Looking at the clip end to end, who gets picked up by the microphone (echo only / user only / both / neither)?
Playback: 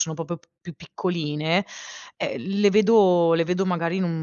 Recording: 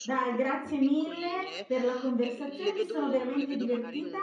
both